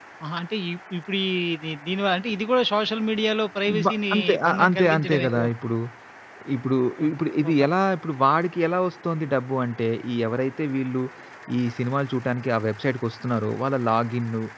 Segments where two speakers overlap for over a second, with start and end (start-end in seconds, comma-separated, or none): 3.8-5.4